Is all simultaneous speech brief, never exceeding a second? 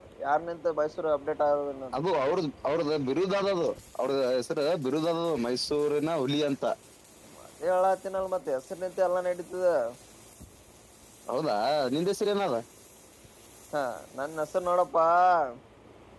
Yes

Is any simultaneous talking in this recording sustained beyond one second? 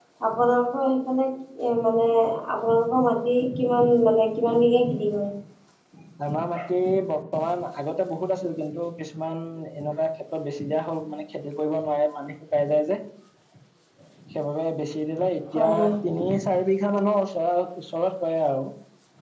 No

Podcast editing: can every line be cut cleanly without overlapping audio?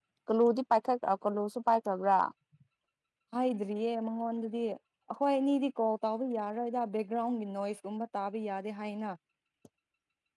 Yes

